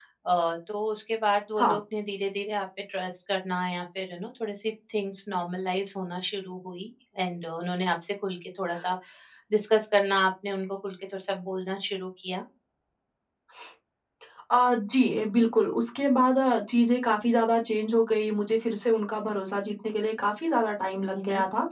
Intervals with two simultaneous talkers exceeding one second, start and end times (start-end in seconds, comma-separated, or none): none